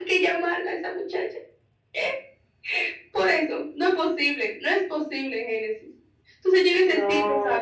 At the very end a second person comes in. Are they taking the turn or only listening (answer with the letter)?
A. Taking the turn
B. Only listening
B